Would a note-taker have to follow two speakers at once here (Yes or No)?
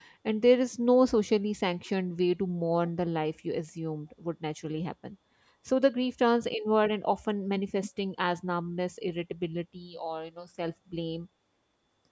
No